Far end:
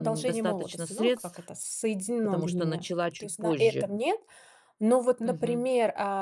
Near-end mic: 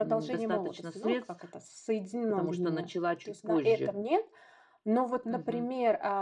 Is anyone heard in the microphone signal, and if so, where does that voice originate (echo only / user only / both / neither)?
echo only